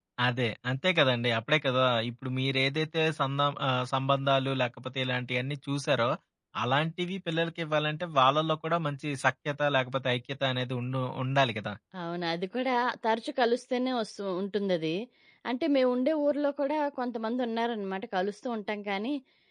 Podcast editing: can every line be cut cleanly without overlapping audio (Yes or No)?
Yes